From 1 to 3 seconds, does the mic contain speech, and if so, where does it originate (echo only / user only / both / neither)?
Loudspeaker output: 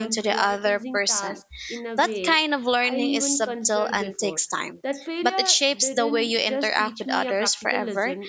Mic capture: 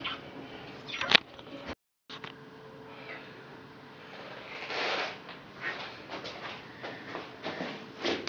neither